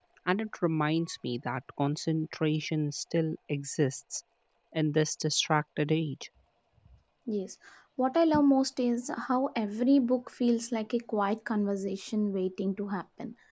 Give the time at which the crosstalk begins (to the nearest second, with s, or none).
none